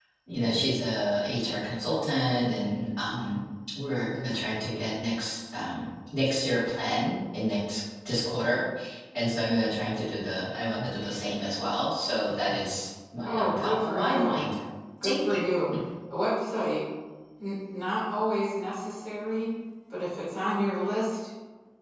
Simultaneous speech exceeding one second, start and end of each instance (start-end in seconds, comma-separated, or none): 13.2-14.4